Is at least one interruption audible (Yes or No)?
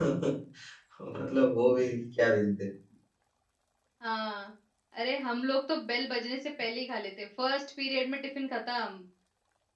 No